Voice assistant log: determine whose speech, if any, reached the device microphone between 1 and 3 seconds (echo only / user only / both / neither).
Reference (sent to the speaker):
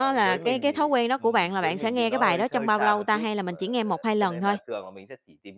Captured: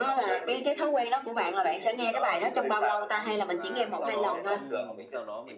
echo only